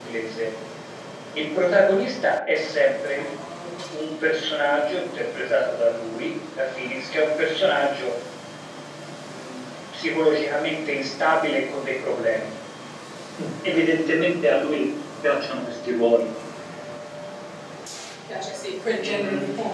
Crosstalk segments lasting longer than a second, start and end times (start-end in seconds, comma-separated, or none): none